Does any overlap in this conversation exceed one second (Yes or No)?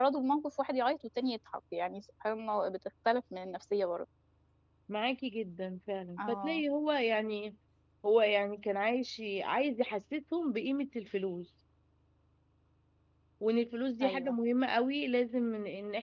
No